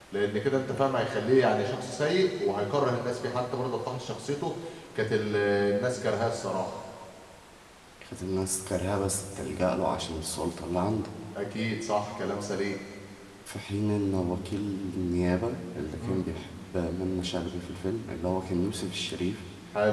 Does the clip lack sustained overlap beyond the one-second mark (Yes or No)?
Yes